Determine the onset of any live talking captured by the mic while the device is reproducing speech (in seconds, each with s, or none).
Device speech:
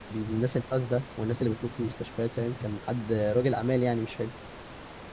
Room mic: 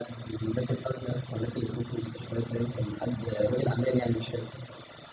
none